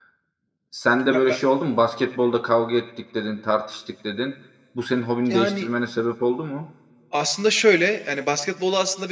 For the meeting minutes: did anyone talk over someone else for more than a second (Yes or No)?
No